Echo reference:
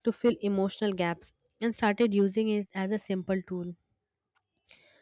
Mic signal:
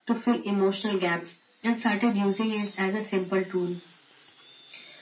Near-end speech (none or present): none